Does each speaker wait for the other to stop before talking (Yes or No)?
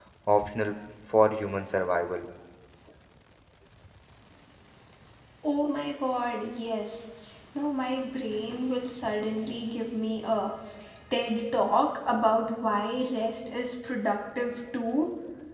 Yes